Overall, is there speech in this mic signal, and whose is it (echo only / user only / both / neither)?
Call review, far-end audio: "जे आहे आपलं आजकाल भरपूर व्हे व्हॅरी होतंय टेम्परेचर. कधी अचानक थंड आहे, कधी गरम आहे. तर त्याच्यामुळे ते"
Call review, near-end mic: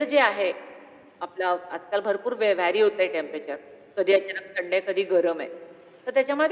echo only